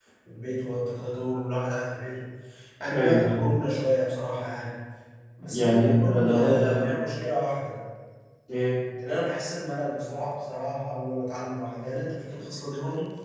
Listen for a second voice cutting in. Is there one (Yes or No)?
Yes